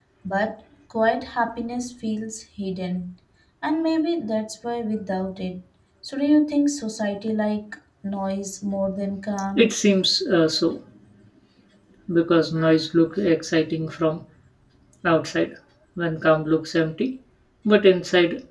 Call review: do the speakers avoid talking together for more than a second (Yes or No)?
Yes